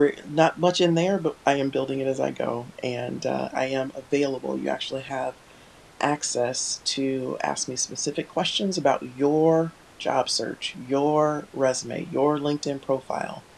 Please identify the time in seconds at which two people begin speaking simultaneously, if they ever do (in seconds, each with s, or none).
none